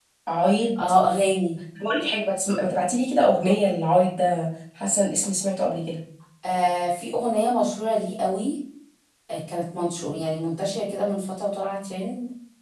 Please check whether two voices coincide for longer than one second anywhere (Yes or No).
No